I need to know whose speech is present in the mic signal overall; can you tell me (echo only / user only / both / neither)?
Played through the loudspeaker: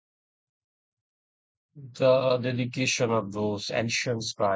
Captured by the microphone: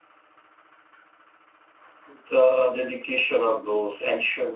echo only